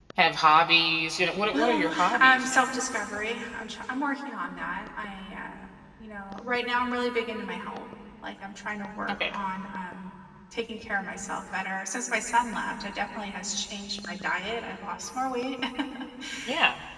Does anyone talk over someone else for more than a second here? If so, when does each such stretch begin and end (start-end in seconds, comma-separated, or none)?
1.5-2.7